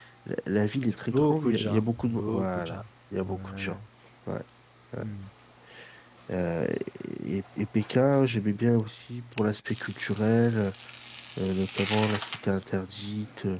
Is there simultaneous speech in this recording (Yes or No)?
Yes